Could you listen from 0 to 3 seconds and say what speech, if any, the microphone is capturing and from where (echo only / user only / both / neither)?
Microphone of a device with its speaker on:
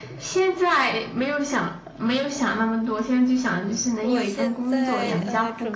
echo only